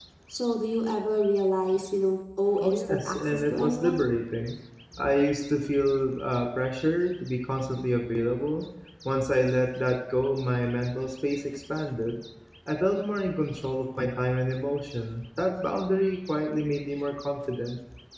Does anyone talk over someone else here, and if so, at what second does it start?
2.6 s

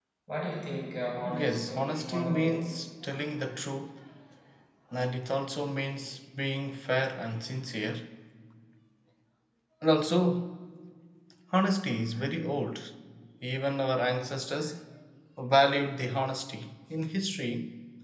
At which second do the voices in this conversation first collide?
1.3 s

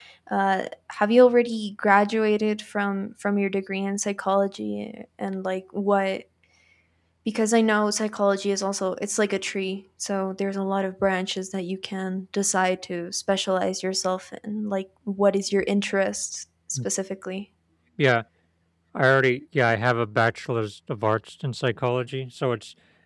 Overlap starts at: none

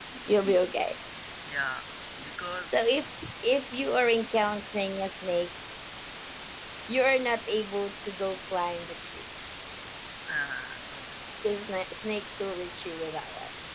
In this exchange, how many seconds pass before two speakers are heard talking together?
none

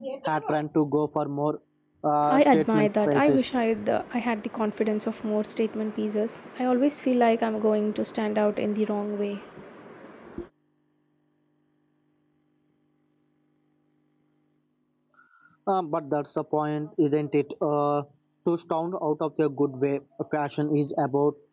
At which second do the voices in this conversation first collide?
2.3 s

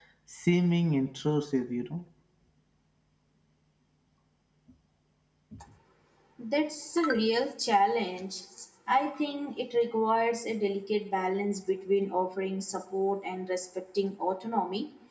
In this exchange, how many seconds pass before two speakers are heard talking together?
none

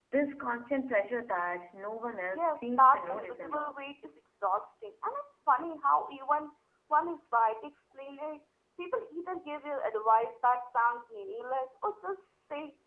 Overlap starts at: 2.4 s

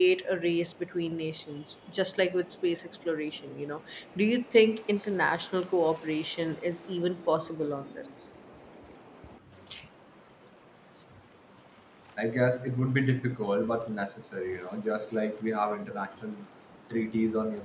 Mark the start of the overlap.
none

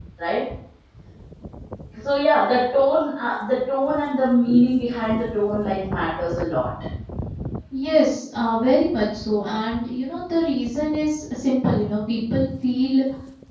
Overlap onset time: none

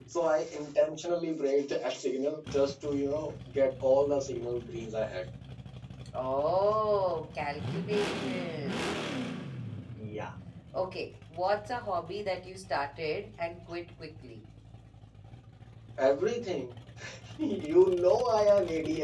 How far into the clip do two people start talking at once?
none

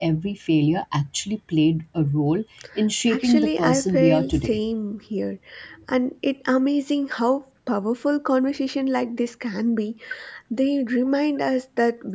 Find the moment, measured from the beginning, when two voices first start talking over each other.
3.1 s

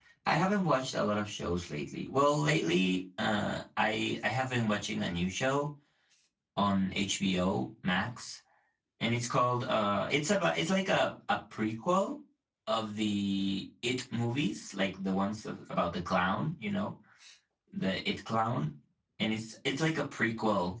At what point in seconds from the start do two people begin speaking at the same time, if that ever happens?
none

